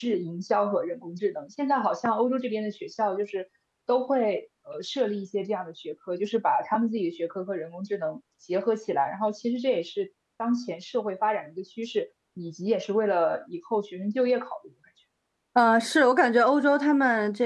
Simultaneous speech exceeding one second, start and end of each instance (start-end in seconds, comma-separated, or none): none